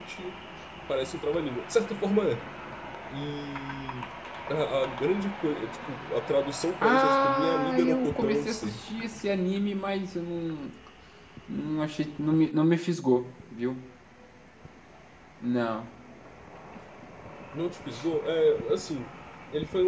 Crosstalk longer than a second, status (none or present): present